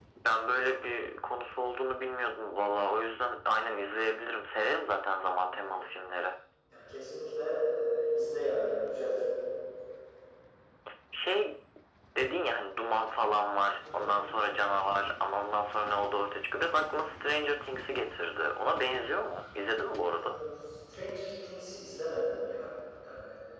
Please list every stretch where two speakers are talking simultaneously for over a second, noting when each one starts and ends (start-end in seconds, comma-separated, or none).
none